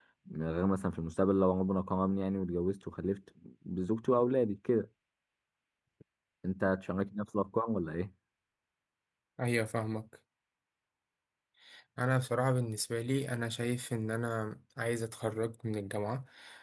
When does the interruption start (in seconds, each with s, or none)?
none